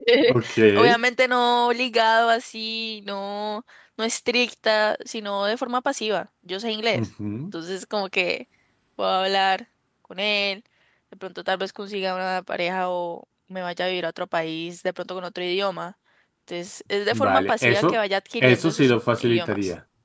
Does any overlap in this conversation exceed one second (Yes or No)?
Yes